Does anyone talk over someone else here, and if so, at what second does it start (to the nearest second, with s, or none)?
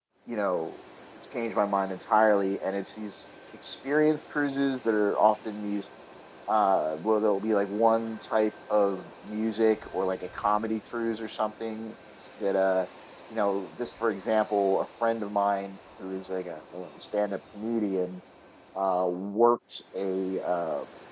none